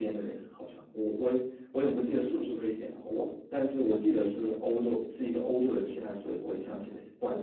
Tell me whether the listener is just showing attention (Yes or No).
No